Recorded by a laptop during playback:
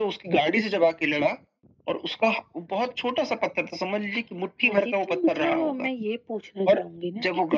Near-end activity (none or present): none